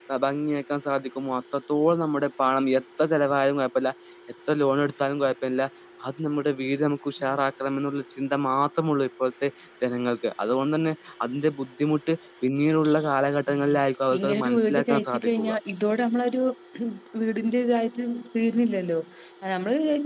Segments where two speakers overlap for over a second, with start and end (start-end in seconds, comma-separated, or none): 14.1-15.5